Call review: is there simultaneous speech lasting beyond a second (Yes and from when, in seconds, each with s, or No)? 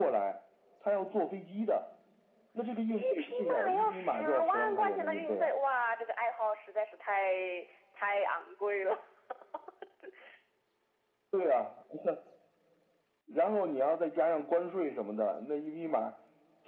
Yes, from 2.9 s